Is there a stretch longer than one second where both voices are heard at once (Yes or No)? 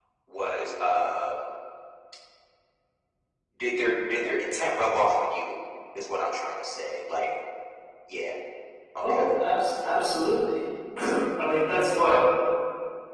No